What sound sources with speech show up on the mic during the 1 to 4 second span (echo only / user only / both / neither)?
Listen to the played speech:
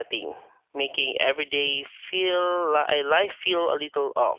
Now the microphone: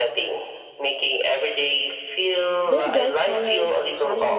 both